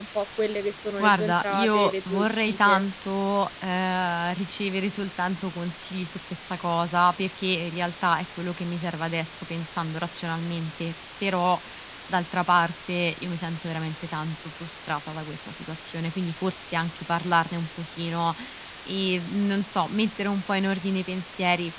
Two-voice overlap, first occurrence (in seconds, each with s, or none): 1.0 s